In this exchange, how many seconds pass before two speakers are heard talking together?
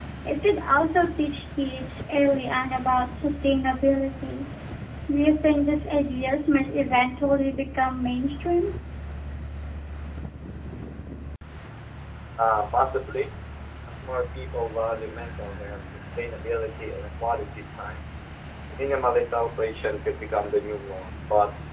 none

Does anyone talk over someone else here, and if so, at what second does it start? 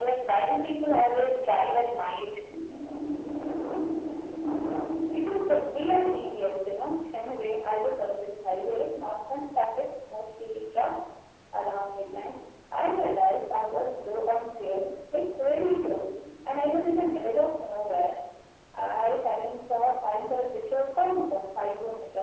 none

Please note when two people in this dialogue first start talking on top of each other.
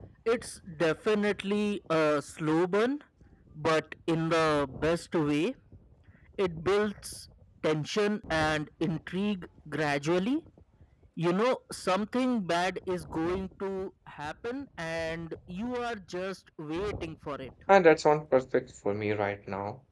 none

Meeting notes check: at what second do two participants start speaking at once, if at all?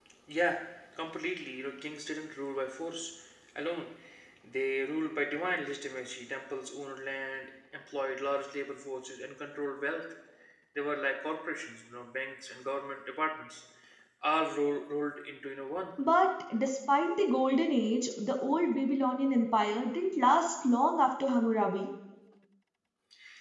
none

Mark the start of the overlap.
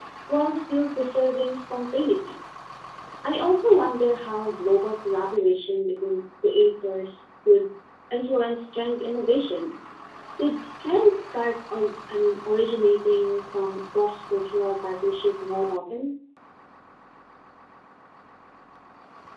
none

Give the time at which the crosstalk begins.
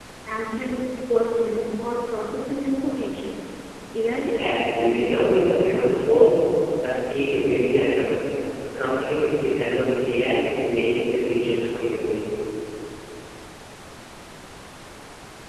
4.4 s

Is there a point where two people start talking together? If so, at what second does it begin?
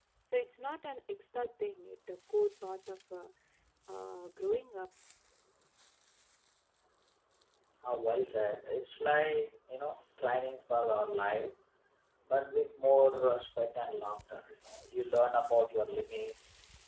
none

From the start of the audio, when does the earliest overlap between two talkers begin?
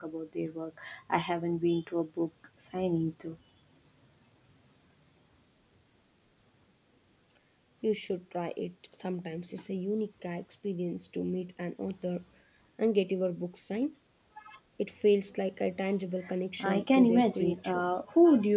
16.6 s

